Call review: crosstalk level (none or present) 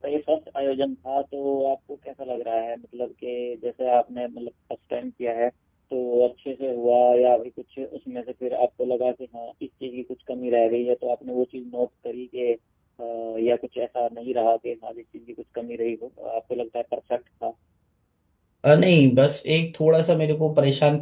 none